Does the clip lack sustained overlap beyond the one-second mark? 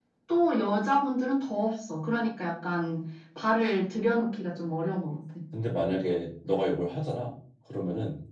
Yes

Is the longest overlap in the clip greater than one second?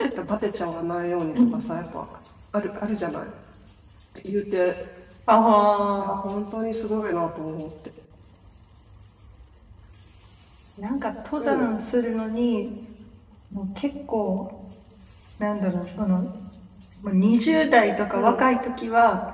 No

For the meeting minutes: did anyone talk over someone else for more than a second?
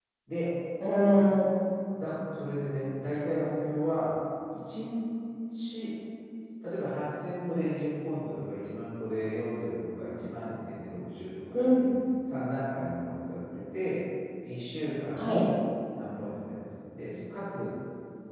No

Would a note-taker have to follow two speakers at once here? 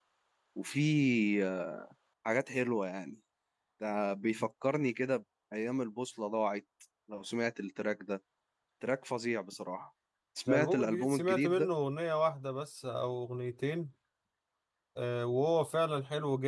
Yes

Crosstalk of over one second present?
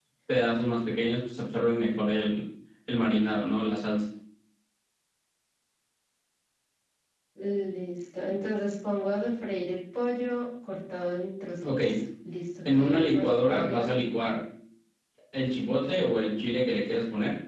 Yes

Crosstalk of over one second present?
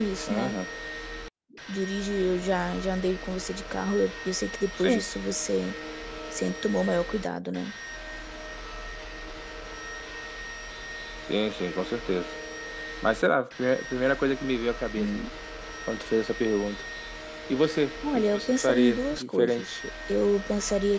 Yes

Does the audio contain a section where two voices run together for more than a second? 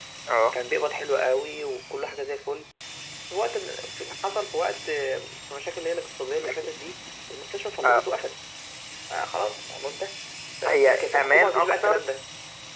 Yes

